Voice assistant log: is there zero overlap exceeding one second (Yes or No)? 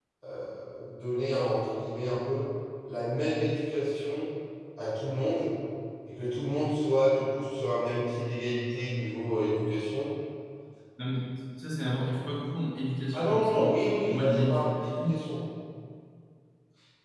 No